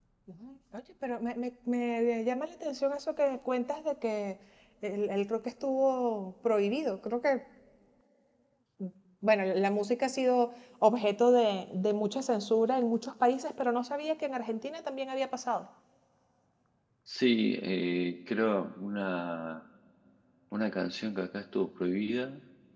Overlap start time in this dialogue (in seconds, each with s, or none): none